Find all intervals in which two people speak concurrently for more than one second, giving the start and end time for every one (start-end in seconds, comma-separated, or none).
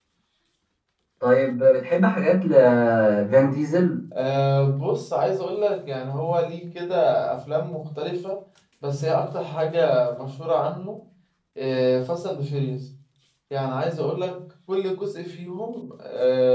none